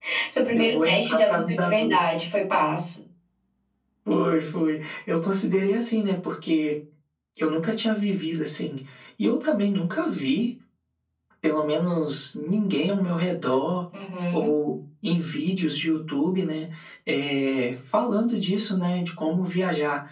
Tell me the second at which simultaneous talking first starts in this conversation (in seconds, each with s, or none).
0.5 s